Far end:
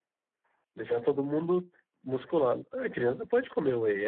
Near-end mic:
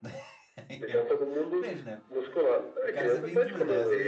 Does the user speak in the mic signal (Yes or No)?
Yes